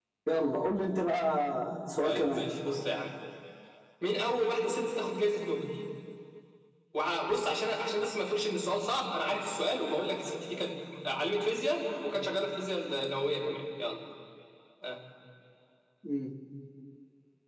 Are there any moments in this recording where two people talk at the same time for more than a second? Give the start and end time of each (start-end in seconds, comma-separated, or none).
none